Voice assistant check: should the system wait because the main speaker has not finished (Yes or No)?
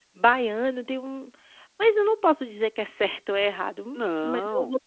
Yes